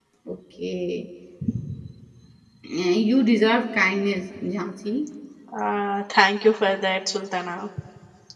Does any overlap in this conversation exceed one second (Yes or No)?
No